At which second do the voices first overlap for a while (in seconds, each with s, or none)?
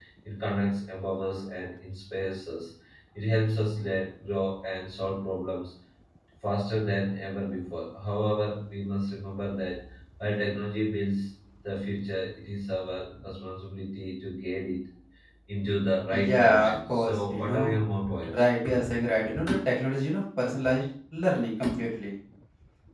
16.3 s